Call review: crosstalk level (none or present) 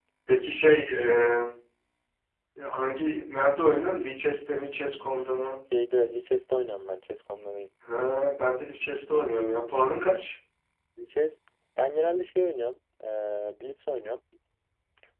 none